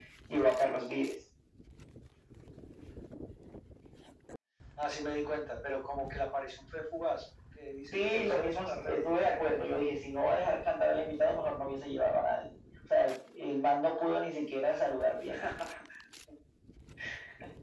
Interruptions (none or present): present